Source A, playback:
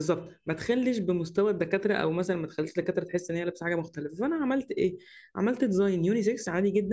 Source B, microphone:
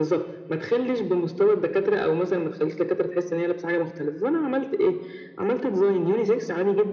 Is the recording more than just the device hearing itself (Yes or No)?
No